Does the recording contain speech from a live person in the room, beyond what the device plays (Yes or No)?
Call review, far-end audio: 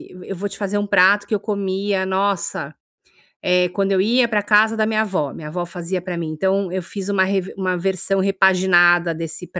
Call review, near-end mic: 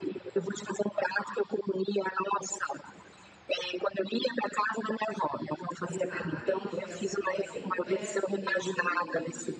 Yes